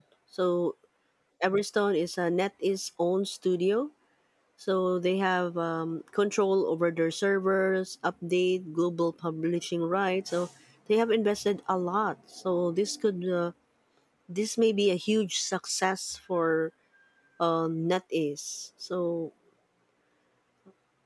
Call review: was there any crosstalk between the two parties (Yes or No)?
No